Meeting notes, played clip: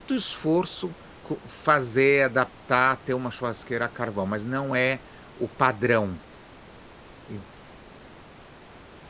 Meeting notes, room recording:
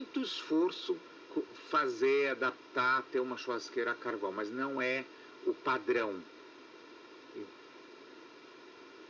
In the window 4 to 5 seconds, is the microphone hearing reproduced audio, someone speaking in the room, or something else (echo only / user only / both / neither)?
echo only